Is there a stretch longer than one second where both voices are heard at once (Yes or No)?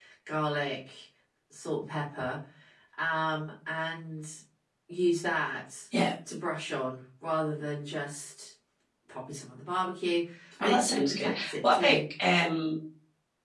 Yes